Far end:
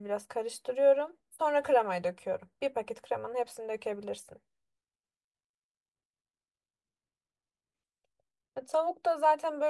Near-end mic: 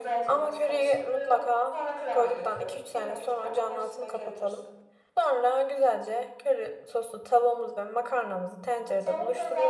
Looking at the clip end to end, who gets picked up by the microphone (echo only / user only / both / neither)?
both